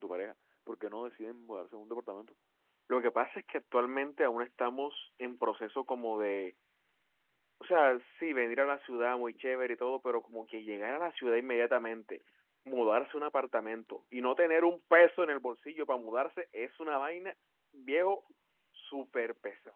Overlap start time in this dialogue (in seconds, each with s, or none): none